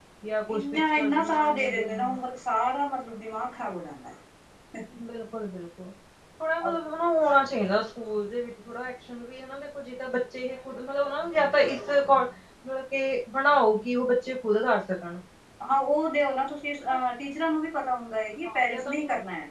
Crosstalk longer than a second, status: present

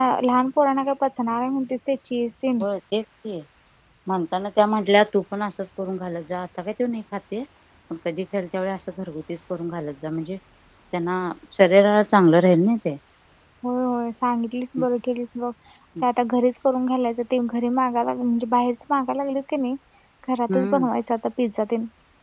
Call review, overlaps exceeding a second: none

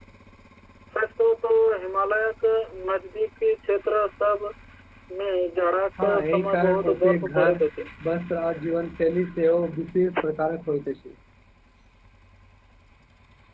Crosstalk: present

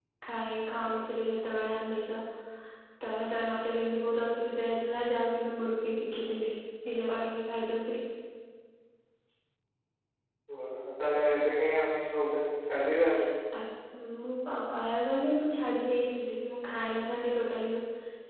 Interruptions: none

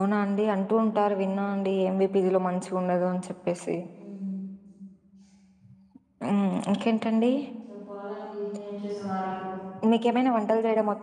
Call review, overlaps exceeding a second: none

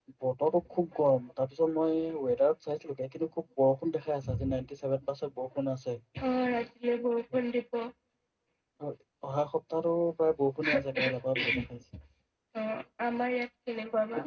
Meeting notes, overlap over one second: none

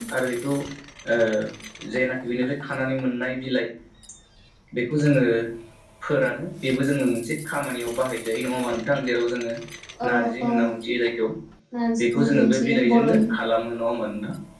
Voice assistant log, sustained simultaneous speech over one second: present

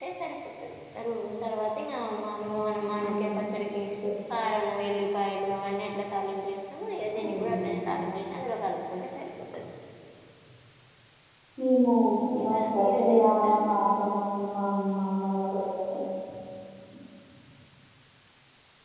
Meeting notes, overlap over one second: present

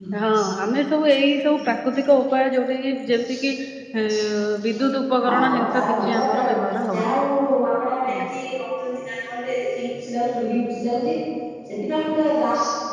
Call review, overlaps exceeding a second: present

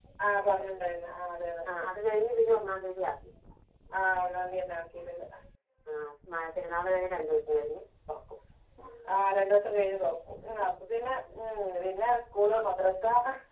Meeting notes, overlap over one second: none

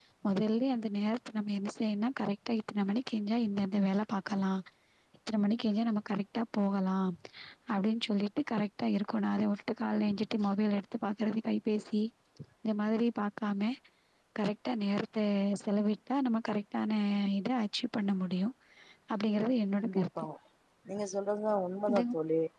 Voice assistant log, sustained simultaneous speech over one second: none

